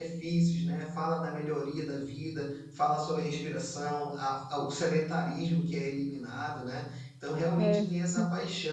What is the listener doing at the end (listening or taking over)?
listening